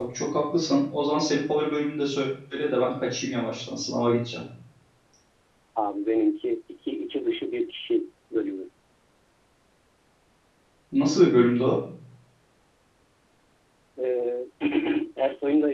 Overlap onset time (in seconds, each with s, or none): none